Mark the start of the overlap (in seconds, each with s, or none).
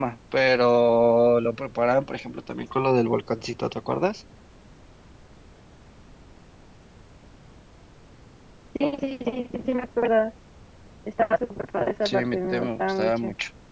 12.0 s